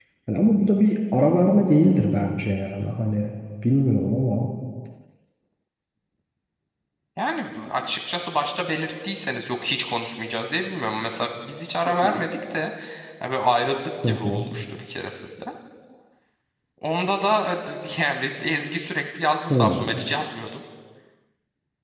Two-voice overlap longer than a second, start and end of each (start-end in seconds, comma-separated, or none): none